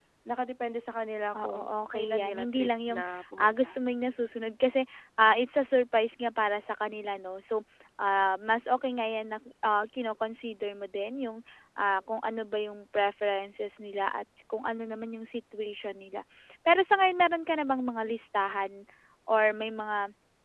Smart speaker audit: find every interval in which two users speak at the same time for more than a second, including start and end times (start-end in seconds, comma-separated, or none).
1.4-3.8